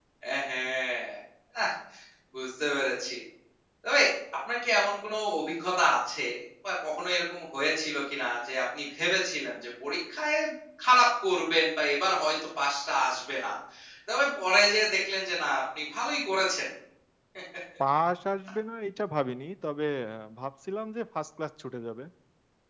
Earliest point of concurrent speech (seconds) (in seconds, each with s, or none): none